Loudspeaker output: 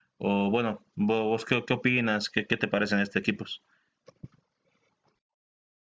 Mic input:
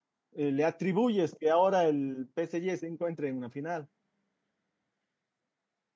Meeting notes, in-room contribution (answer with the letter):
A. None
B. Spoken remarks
B